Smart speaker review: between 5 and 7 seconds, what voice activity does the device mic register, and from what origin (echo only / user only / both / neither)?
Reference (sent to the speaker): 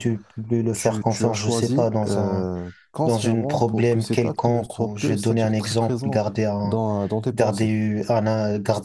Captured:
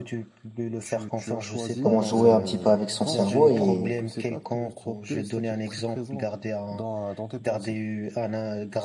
echo only